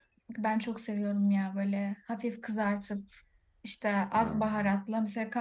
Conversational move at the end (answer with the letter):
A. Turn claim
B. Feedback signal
B